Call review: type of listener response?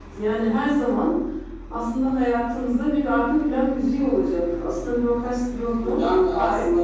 taking over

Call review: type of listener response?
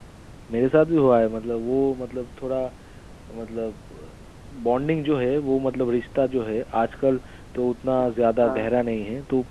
listening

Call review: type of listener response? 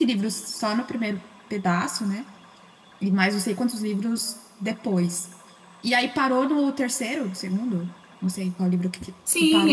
taking over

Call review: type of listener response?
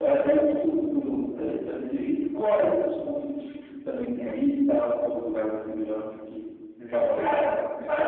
taking over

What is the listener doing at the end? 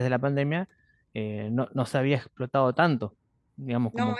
taking over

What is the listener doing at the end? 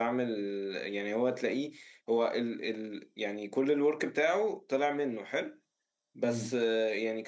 listening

